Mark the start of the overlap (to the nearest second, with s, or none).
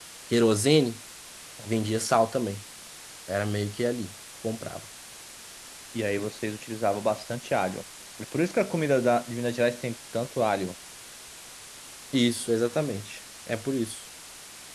none